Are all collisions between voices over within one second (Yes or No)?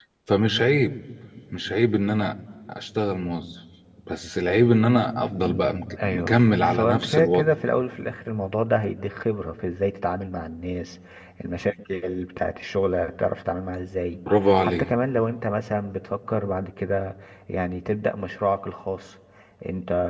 No